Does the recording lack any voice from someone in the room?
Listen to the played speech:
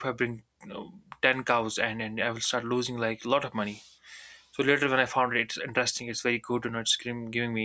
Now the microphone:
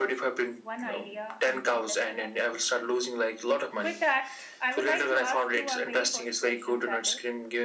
No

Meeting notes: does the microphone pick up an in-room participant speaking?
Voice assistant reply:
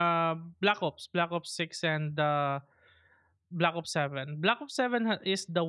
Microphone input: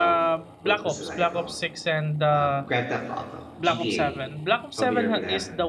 Yes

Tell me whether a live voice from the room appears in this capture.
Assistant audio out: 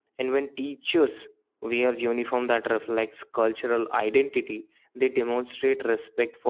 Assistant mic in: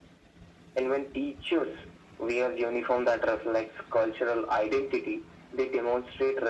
No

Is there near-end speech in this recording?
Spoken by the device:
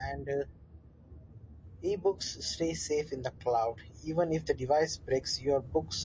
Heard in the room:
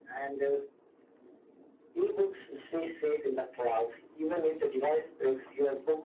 No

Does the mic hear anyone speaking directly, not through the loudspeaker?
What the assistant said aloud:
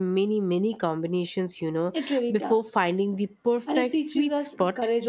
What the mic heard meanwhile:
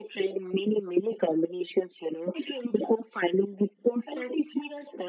No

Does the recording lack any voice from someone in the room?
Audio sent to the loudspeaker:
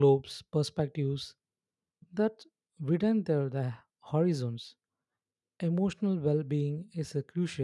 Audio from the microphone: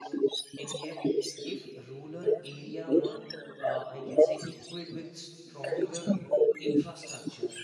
No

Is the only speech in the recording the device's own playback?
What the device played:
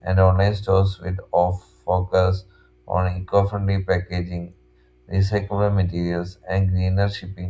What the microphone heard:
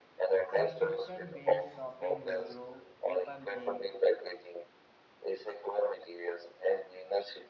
No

